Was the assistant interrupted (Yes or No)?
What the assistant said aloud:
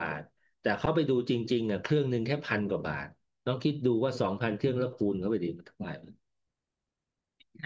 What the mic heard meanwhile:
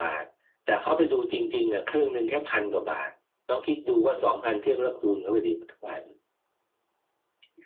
No